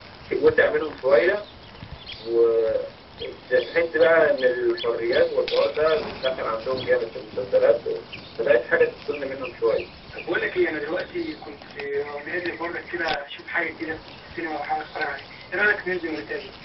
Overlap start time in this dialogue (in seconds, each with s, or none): none